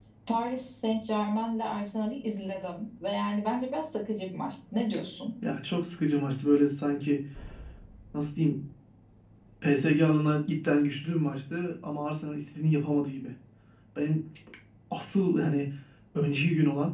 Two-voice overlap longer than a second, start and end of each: none

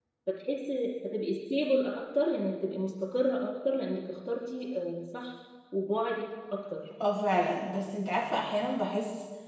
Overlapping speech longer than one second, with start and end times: none

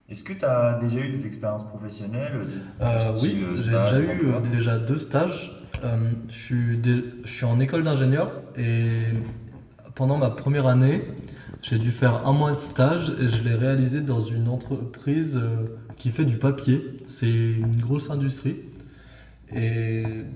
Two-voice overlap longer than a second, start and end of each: 2.9-4.5

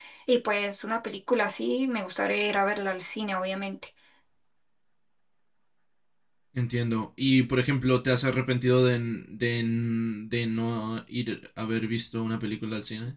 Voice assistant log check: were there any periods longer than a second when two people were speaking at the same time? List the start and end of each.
none

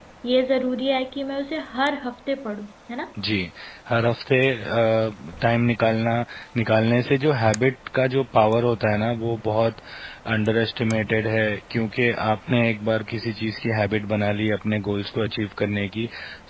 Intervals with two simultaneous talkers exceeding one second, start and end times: none

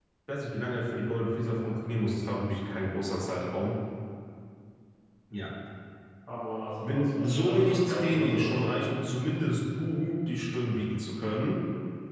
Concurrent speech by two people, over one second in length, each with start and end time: 6.8-8.7

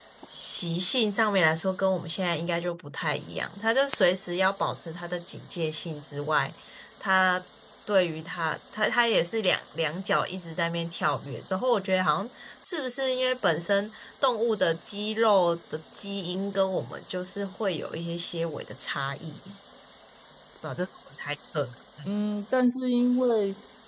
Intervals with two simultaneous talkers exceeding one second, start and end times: none

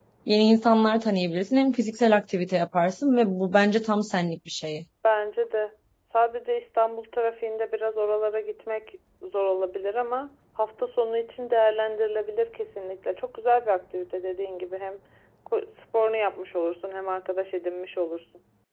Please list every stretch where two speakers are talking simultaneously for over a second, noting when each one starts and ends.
none

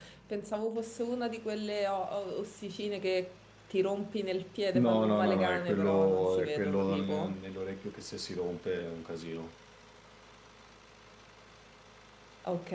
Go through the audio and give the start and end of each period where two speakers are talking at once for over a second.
4.7-7.4

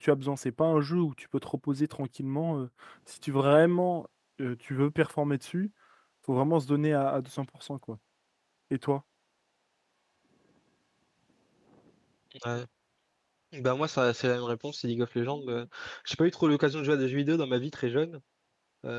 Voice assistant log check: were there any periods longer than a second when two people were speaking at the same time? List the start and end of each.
none

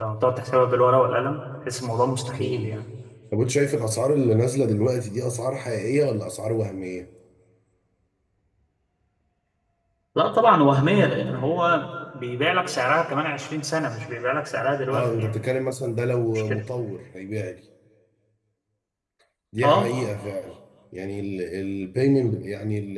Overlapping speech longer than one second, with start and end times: none

